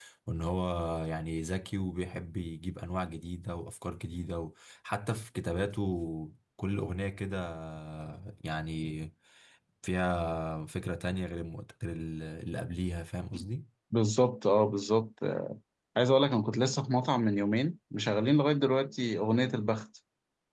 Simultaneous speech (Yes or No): No